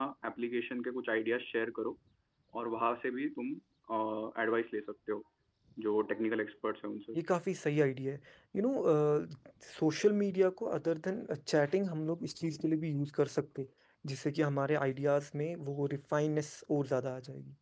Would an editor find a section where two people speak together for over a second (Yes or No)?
No